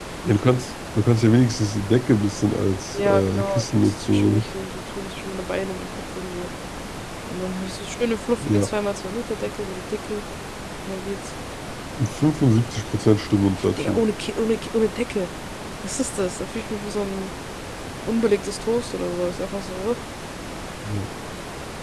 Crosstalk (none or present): present